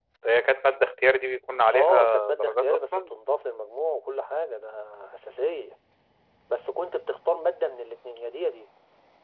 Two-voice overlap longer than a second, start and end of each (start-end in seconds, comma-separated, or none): 1.7-3.0